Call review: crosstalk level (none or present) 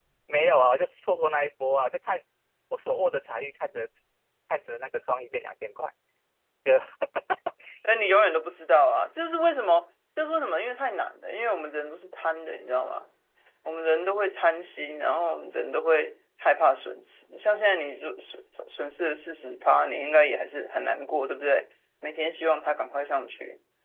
none